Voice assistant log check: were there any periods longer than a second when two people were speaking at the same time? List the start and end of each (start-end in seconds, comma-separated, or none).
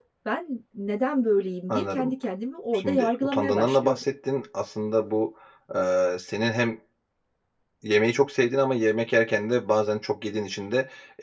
2.7-4.0